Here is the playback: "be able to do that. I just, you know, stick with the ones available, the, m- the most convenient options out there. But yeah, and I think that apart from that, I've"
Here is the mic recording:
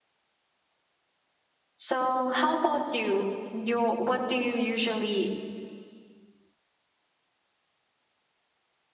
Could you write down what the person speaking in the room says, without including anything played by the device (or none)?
So, how about you? You what do you usually